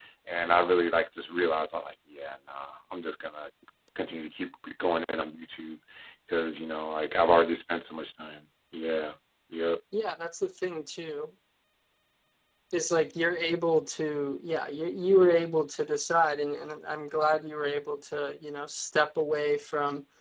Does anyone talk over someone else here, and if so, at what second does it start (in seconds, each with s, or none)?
none